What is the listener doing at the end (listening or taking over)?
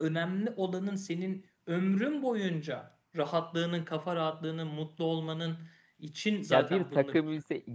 taking over